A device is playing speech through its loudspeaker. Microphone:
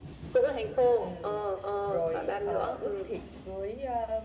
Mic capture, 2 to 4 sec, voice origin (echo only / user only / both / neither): both